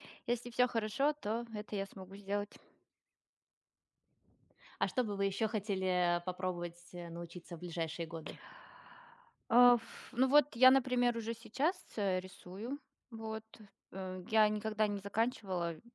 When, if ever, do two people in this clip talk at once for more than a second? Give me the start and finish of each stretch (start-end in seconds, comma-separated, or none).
none